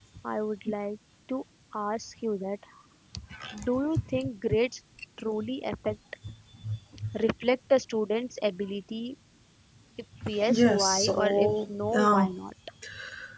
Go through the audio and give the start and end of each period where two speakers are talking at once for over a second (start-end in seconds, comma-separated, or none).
10.5-12.3